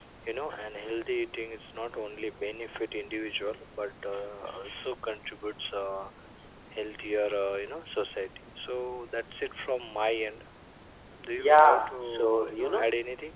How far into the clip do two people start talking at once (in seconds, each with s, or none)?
11.4 s